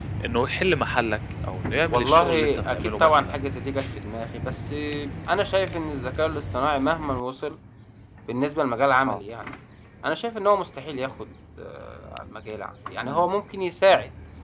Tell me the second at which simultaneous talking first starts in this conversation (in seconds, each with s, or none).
1.9 s